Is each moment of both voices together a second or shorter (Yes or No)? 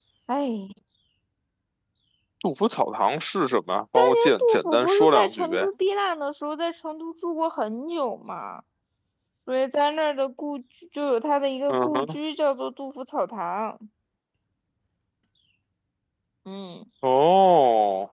No